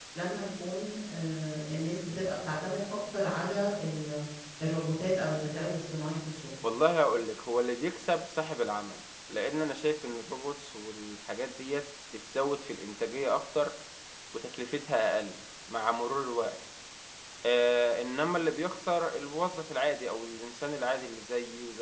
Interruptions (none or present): none